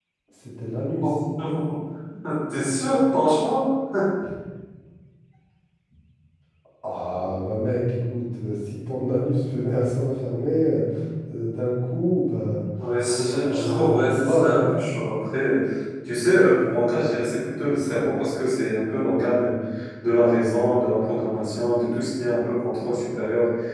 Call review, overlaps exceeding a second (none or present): present